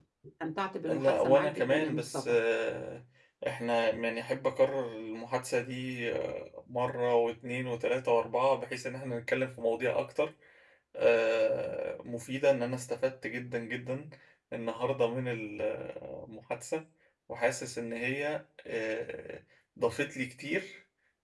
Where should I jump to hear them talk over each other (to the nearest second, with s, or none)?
1 s